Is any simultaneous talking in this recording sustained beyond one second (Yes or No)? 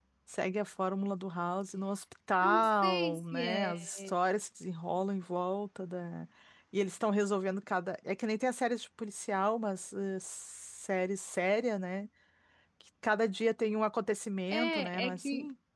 Yes